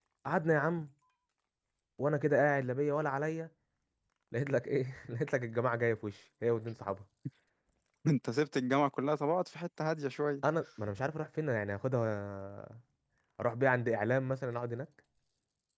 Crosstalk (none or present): none